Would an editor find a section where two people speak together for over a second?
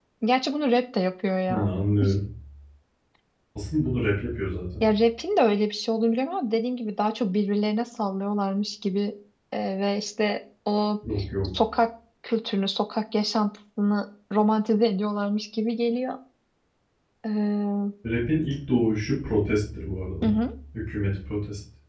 No

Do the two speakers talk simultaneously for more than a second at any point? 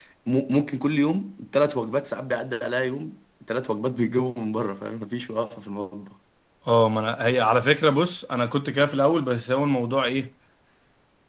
No

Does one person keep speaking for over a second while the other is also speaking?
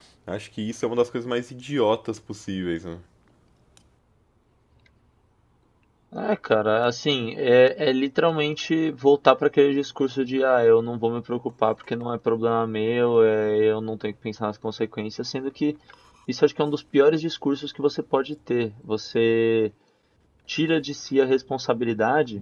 No

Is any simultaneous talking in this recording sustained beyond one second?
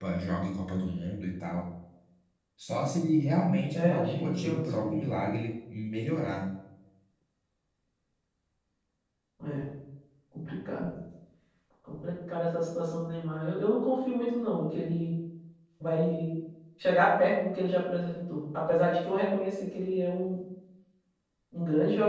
Yes, from 3.7 s

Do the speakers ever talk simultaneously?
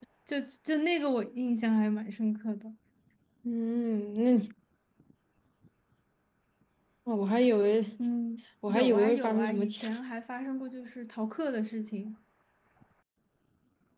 Yes, from 8.7 s

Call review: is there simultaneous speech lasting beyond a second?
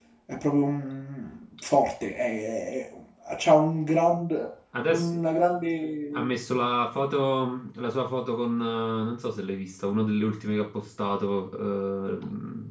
No

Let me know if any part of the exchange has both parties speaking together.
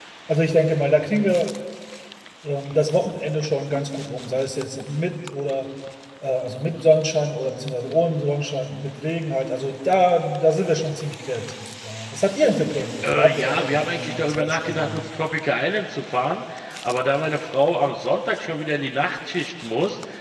Yes, from 13.0 s

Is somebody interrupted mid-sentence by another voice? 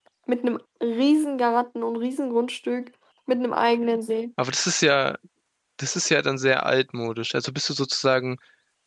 No

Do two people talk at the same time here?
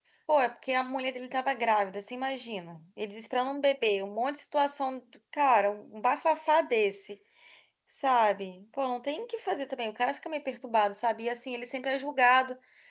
No

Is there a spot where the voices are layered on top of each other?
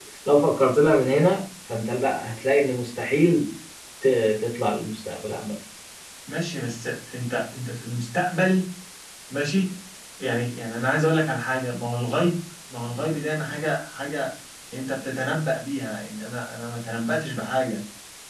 No

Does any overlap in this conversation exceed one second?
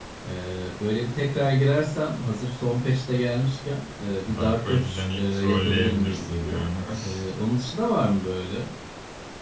Yes, from 4.3 s

